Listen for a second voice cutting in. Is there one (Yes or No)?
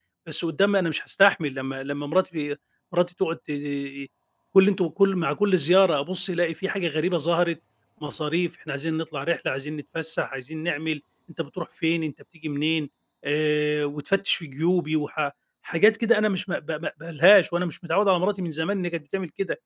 No